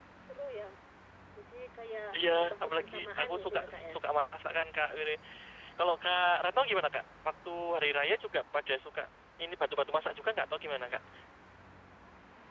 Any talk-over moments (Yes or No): Yes